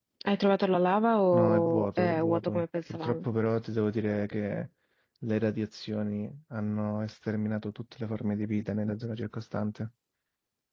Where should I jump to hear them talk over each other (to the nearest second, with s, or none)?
1 s